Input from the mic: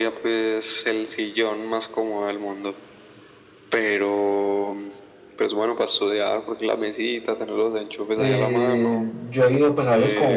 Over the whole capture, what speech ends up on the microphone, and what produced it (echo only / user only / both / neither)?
both